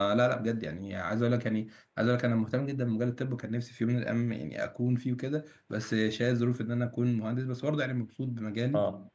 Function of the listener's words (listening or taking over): taking over